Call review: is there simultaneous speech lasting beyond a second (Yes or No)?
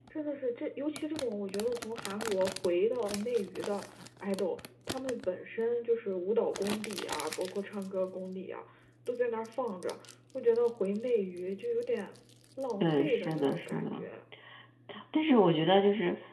Yes